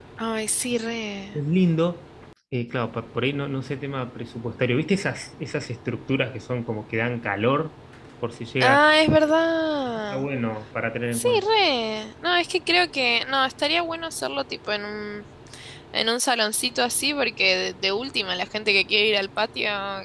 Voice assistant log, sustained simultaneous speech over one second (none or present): none